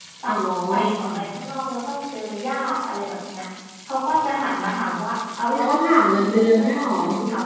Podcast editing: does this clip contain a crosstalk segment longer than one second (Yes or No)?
Yes